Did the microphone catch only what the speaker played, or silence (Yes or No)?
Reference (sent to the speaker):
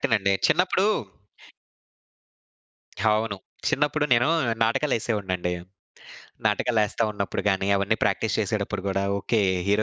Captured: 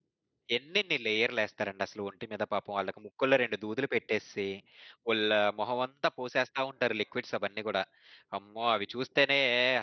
No